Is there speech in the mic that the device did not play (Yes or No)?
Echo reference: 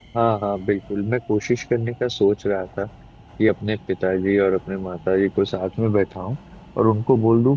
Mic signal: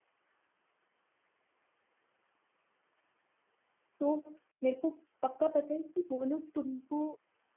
Yes